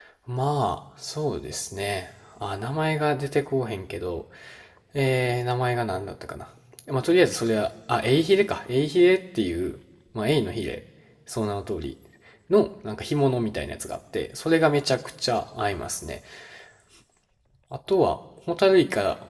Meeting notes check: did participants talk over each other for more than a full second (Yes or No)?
No